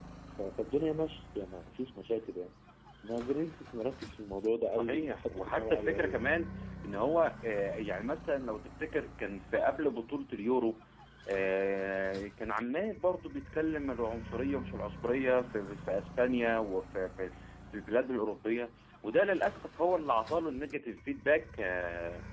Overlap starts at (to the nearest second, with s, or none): 5 s